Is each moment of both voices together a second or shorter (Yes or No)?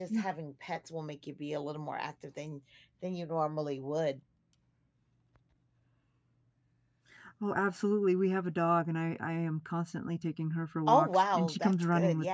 No